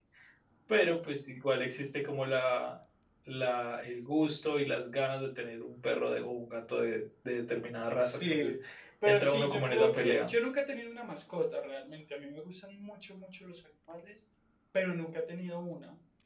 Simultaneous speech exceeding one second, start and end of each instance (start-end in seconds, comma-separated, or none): 9.0-10.3